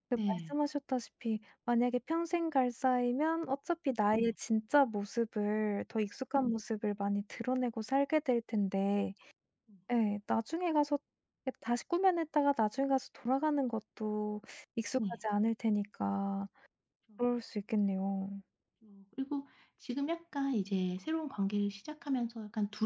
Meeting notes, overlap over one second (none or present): none